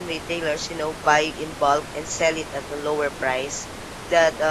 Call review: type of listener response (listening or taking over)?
listening